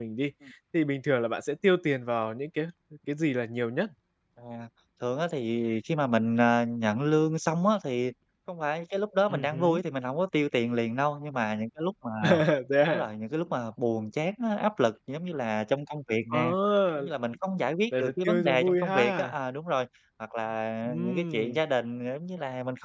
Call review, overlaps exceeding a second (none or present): present